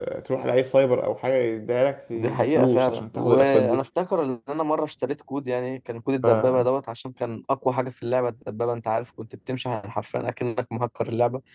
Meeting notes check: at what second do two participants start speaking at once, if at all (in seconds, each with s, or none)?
2.1 s